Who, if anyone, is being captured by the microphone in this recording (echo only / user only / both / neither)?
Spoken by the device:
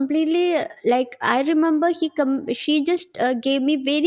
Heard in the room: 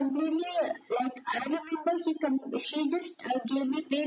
echo only